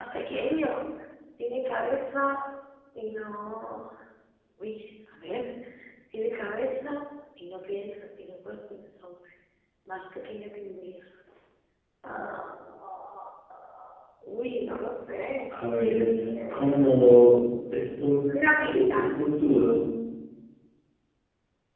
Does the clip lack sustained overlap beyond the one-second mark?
Yes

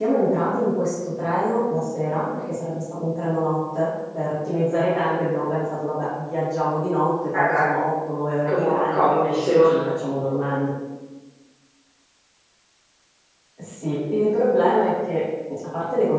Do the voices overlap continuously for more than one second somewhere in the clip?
Yes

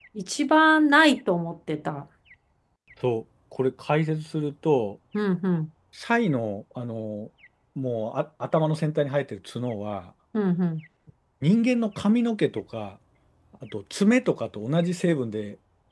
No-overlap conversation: Yes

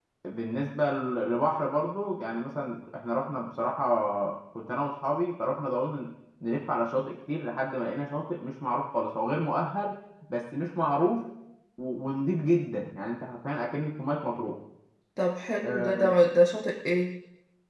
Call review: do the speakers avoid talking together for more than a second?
Yes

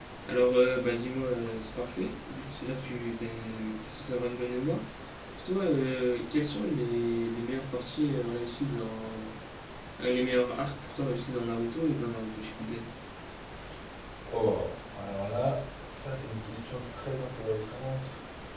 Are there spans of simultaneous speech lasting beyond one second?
No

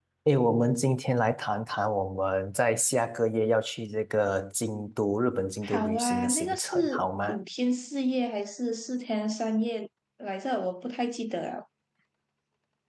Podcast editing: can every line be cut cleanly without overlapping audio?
No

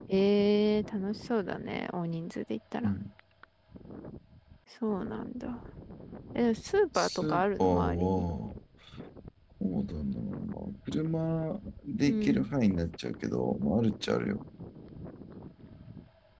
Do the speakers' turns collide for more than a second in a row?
Yes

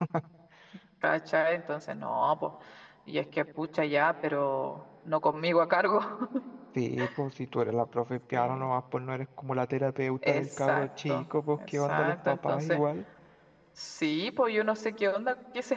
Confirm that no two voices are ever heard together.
No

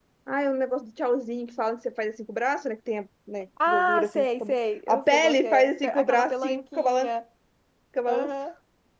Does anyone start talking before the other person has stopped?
Yes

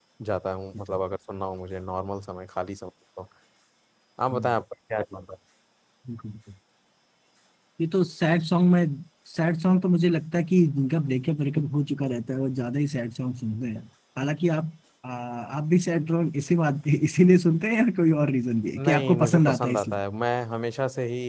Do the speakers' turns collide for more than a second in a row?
Yes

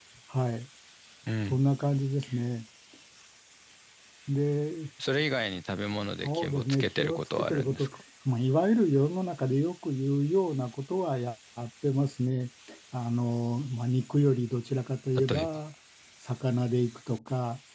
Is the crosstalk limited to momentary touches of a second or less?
No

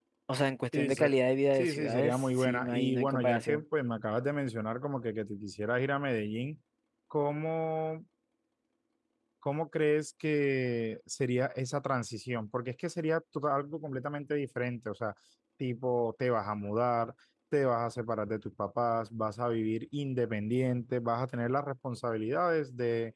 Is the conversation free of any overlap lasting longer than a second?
No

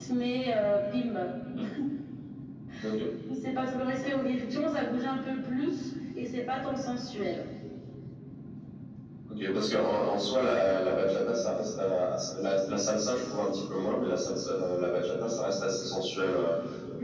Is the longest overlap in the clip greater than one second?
No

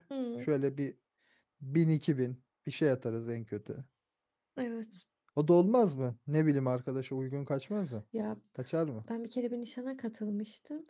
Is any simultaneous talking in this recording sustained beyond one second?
No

